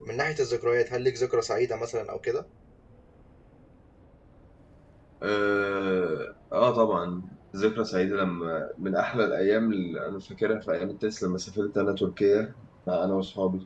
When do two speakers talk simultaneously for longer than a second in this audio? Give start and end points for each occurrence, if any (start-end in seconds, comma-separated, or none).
none